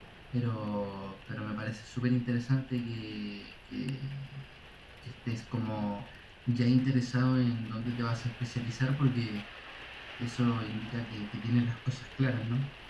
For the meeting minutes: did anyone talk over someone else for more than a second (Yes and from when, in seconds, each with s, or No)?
No